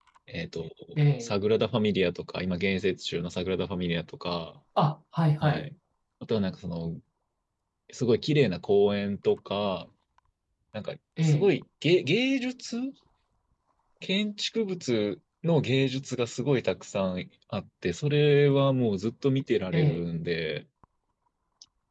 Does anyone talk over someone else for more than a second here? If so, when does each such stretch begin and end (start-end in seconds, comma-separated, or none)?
none